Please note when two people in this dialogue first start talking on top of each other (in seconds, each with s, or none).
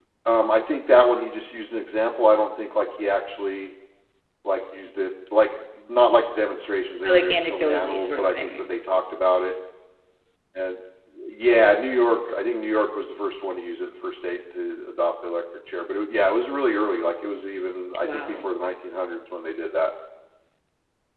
7.0 s